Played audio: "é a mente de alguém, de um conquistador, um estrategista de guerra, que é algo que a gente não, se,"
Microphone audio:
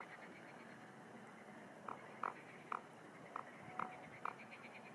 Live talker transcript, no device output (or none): none